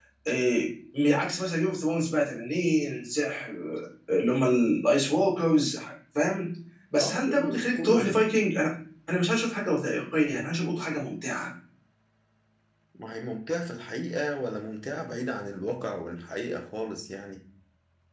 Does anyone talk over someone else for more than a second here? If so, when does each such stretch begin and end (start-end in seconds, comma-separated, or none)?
7.0-8.3